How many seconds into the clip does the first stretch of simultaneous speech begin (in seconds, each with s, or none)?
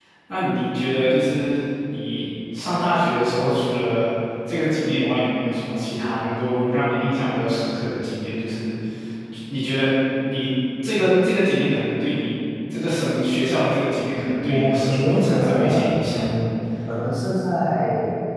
14.5 s